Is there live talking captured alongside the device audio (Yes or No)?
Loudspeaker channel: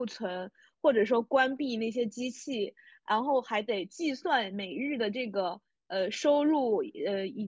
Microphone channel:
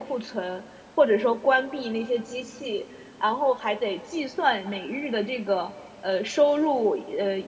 No